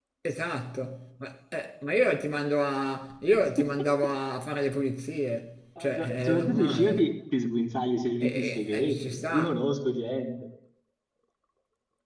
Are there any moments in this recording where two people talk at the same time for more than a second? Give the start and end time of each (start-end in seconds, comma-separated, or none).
5.8-7.1, 8.2-9.5